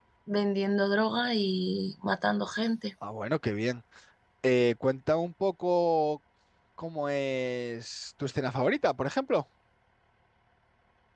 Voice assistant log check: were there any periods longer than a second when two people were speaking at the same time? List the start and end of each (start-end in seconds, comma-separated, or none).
none